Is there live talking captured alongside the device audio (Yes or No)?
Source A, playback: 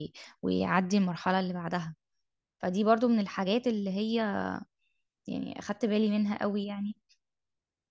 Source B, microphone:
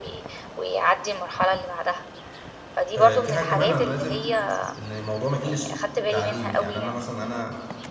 Yes